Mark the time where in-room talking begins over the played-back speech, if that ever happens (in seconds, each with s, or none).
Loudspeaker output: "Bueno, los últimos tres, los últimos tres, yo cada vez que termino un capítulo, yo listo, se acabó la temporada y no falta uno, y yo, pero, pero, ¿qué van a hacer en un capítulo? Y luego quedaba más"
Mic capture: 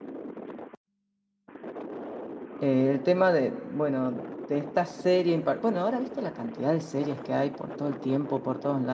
2.6 s